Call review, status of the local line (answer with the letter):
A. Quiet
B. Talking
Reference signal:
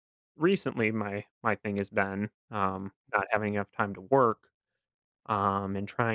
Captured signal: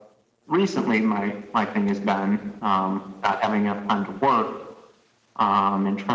A